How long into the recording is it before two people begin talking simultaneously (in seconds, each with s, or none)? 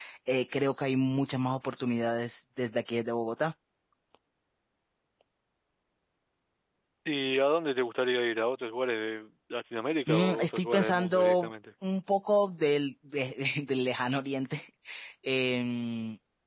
10.1 s